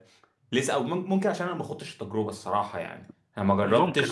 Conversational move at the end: listening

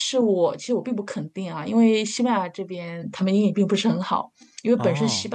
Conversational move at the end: listening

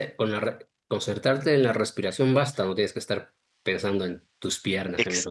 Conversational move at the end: taking over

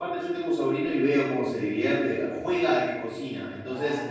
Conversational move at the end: listening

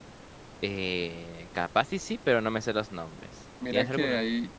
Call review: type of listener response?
taking over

